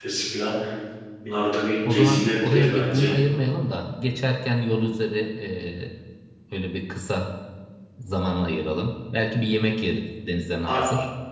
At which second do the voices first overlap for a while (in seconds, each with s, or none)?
1.9 s